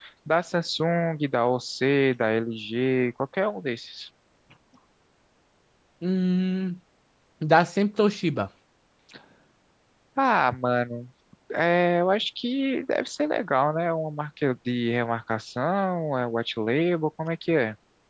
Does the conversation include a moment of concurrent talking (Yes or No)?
No